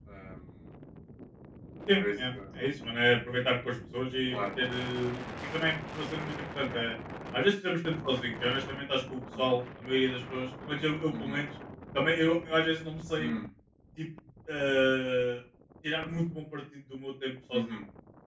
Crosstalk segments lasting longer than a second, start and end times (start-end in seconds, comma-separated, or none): none